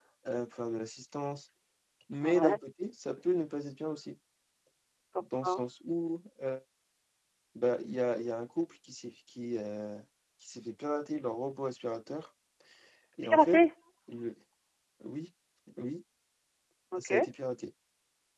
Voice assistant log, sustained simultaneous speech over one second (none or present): none